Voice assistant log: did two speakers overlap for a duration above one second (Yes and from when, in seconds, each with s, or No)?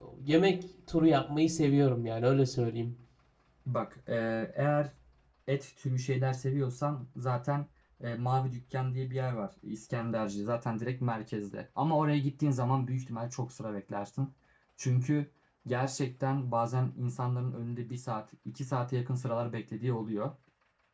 No